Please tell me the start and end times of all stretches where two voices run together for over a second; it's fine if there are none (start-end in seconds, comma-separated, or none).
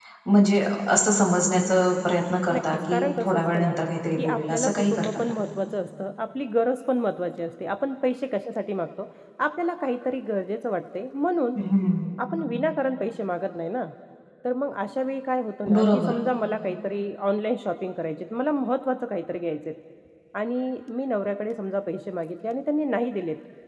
2.5-3.7, 4.2-5.4